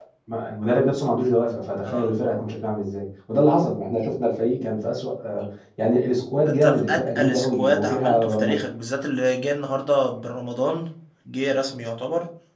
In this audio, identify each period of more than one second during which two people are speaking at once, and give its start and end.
6.5-8.6

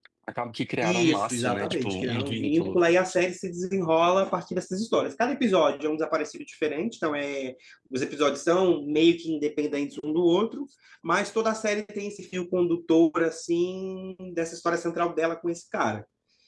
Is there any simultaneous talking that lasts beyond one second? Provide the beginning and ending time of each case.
0.8-2.8

